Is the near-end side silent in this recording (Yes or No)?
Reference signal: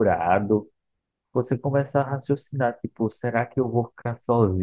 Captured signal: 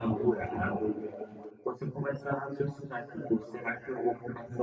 Yes